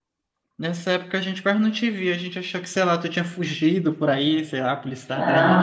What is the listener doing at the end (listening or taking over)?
taking over